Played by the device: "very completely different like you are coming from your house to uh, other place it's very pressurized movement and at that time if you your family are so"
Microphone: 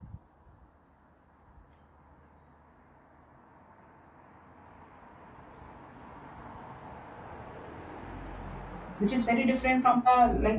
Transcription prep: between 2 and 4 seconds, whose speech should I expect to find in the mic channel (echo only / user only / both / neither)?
neither